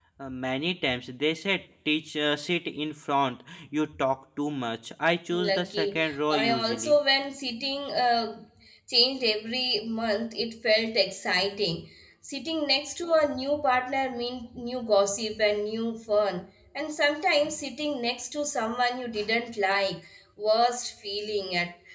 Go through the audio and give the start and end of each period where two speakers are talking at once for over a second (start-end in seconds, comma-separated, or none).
5.3-7.0